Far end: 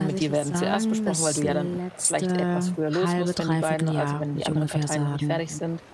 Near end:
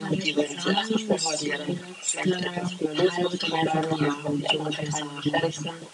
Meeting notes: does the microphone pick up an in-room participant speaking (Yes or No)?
No